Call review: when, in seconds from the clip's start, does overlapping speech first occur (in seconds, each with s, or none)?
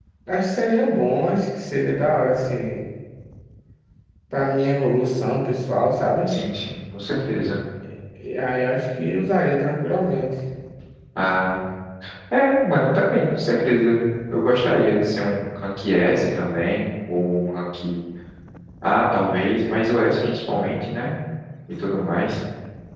none